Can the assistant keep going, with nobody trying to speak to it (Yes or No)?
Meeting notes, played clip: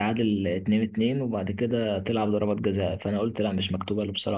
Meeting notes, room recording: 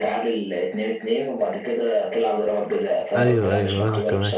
No